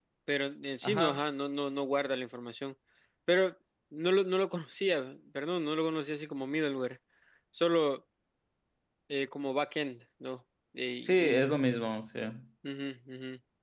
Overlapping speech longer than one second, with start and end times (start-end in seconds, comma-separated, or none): none